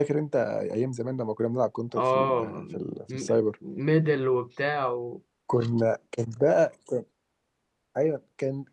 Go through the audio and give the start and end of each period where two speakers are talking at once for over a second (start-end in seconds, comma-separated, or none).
2.0-3.4